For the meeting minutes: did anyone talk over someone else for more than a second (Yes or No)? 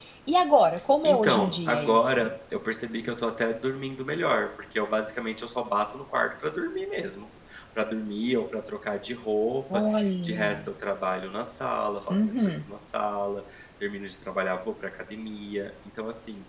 Yes